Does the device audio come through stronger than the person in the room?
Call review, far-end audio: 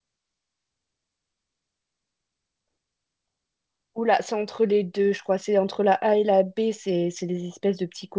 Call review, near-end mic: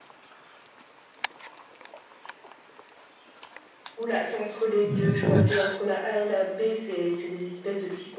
No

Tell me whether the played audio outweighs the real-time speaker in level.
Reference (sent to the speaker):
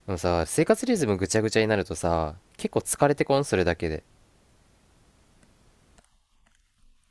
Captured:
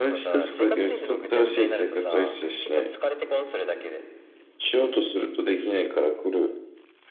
No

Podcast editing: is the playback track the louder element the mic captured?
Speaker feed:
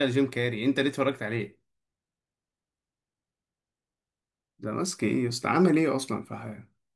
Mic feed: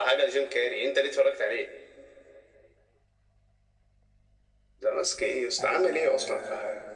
Yes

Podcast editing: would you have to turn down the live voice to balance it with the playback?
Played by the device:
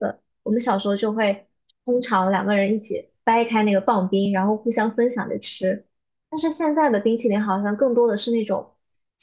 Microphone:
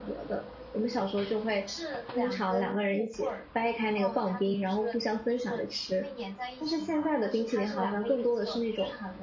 No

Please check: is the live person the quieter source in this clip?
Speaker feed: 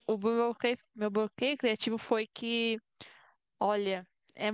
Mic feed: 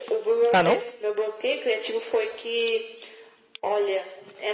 No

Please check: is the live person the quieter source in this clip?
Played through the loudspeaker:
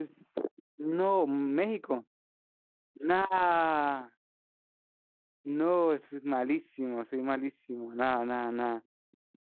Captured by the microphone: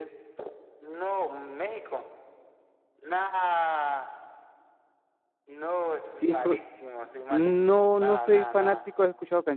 No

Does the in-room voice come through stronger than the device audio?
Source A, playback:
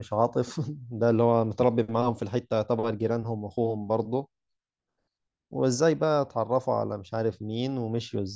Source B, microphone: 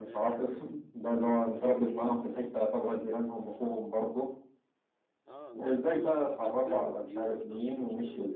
No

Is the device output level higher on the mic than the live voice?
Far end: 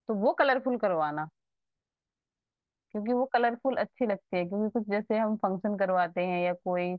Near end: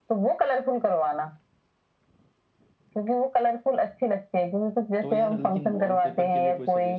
Yes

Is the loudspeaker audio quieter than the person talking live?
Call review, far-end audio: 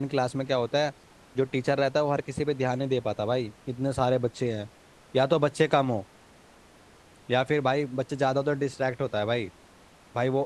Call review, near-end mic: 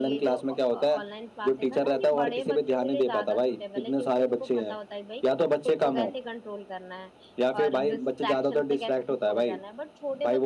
No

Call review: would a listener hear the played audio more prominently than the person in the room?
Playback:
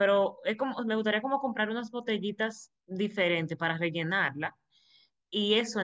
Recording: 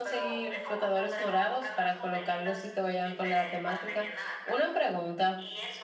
No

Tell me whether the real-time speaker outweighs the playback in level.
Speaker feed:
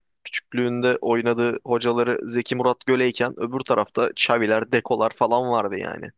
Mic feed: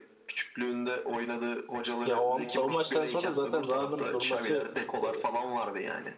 Yes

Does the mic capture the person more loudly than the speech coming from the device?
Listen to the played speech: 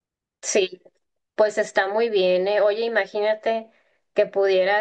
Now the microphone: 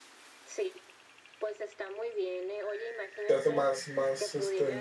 Yes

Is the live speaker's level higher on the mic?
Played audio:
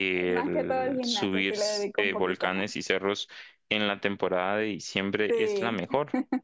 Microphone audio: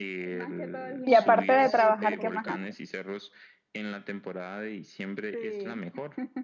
Yes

